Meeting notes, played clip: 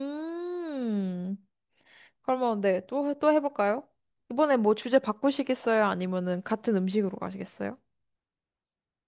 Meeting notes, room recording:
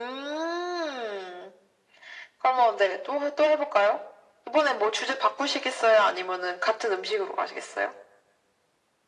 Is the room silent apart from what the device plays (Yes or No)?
Yes